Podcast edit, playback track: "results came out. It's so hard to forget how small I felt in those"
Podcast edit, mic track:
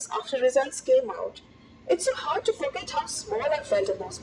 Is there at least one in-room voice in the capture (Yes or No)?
No